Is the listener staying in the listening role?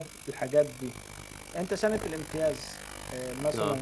Yes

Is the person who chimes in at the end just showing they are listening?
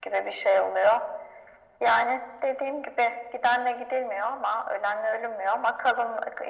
Yes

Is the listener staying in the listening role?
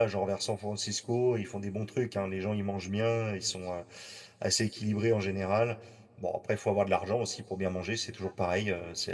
Yes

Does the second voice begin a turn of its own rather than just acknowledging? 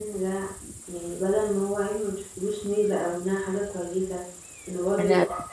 No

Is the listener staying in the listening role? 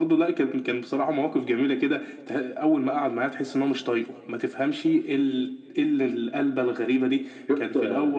Yes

